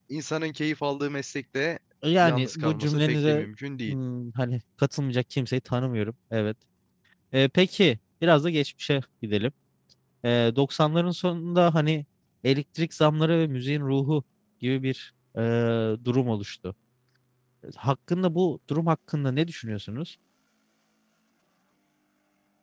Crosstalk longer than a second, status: present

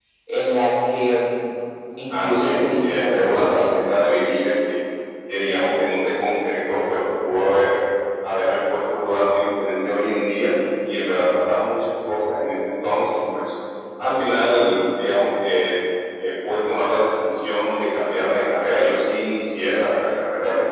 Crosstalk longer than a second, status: present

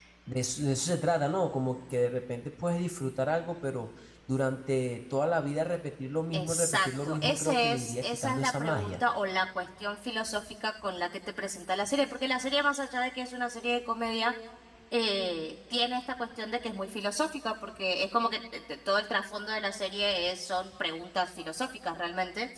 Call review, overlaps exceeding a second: present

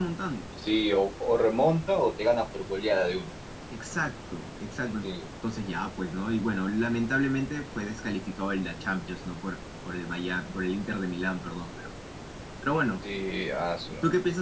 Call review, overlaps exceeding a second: none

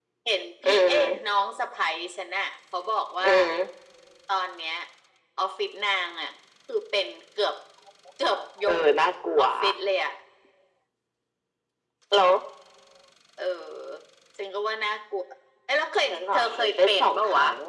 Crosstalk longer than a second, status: present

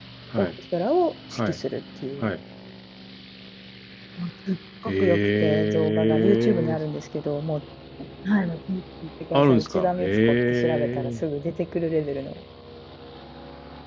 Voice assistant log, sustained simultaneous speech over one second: present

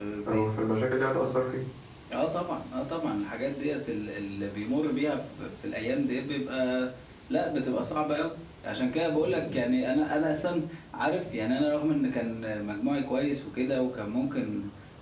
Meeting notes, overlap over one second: none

